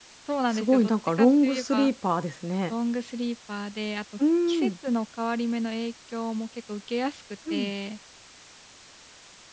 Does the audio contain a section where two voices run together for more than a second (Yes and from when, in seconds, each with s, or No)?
Yes, from 0.5 s